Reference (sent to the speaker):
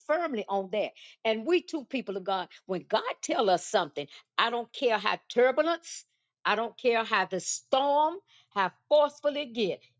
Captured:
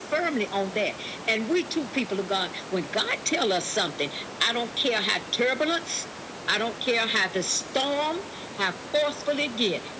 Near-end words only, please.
none

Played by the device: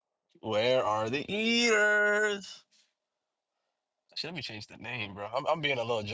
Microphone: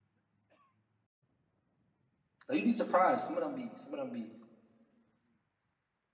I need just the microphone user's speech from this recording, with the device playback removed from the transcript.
Like, you'd be surprised. Some of them be. Some of them be.

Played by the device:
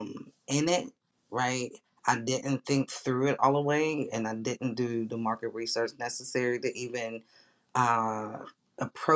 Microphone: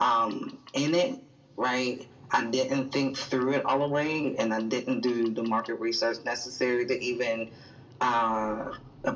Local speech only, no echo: none

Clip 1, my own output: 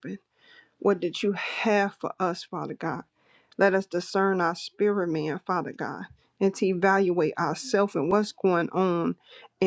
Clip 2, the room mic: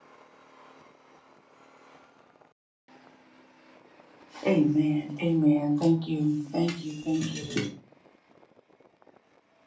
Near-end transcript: Amen. Amen. Thank you. Thank you. Thank you, Lord.

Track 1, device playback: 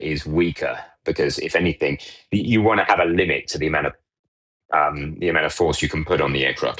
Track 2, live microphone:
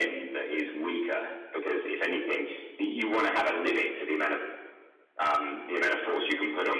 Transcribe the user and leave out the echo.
none

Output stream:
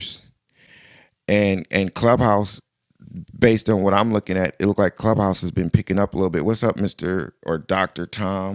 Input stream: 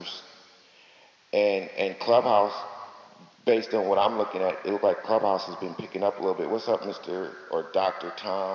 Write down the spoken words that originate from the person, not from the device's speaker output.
none

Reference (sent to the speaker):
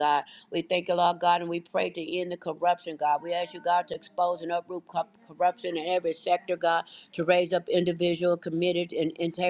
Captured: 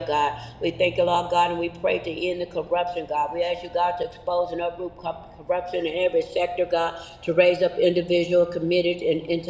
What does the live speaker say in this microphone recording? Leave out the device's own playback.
none

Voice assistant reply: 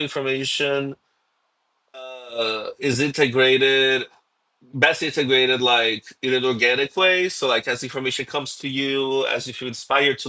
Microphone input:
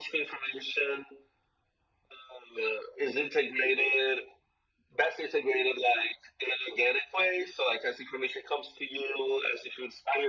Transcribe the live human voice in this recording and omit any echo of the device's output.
none

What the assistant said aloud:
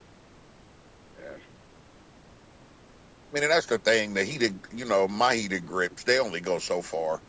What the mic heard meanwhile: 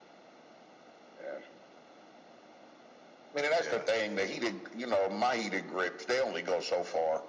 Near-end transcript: Yeah,

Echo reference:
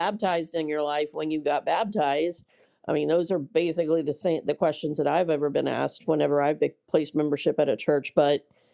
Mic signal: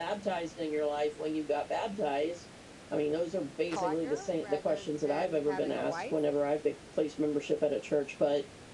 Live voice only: partner rather than having a wife?

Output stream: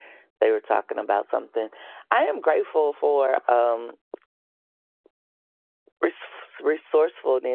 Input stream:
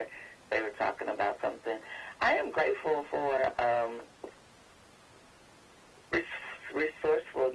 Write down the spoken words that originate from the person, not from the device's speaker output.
none

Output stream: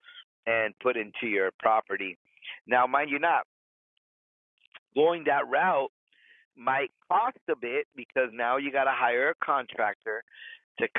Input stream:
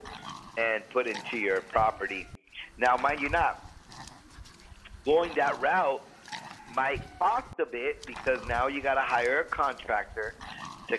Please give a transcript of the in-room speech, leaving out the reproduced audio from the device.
none

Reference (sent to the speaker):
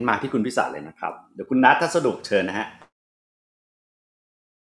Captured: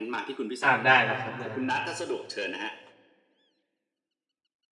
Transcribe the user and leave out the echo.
อ้าวได้นะครับได้นะครับ

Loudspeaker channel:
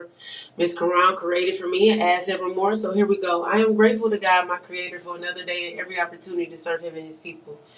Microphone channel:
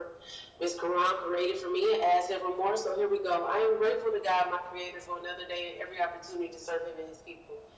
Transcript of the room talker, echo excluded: none

